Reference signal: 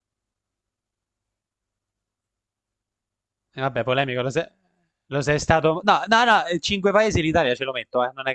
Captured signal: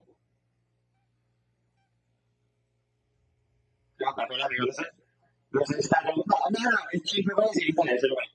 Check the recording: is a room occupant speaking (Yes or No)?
No